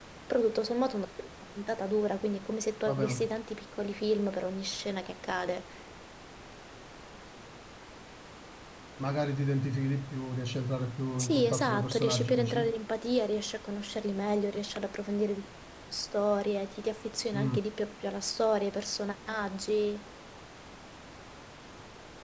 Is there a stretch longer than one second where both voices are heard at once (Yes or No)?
Yes